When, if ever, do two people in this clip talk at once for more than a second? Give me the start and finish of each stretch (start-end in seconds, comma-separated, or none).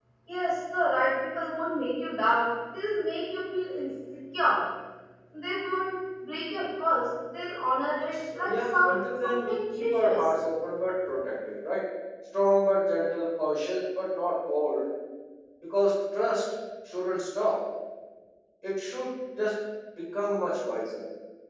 8.6-10.3